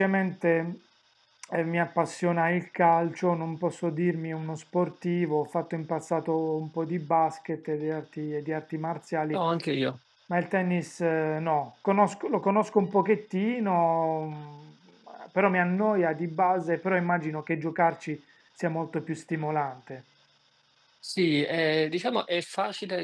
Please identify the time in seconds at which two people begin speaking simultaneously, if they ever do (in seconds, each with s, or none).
none